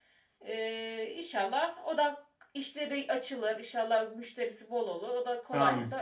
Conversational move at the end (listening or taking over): taking over